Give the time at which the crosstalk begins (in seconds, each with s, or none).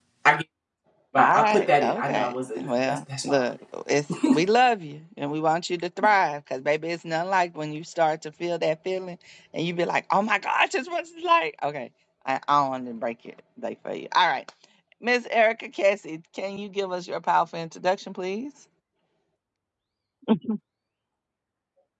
1.2 s